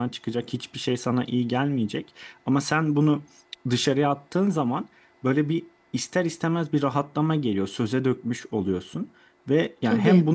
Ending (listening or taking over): listening